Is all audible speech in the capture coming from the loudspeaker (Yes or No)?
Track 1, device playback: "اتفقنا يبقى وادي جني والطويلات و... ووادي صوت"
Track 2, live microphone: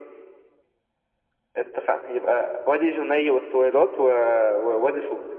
Yes